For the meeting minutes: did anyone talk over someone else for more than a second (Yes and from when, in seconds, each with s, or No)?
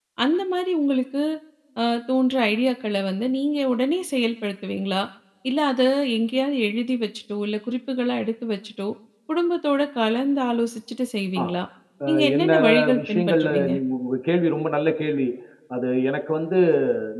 Yes, from 12.1 s